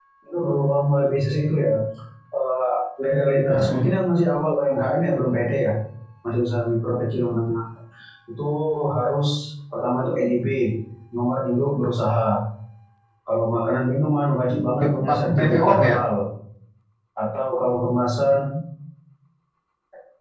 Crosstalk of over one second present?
Yes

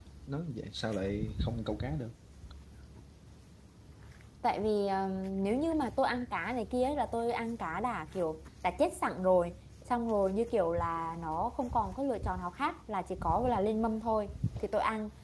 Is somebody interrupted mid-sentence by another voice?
No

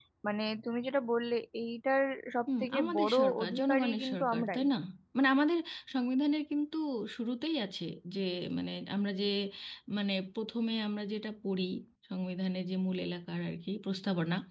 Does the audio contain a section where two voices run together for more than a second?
Yes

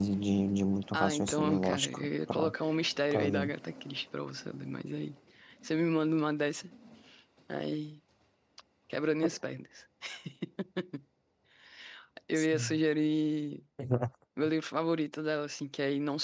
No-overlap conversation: No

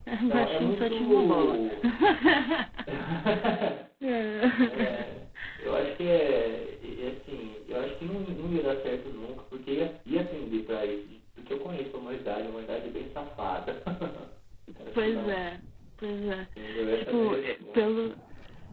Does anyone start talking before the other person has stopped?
Yes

